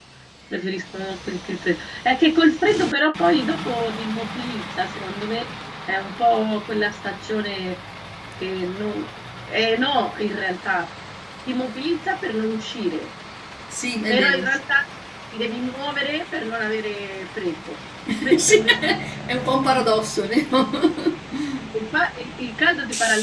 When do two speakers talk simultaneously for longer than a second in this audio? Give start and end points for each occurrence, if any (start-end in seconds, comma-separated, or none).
none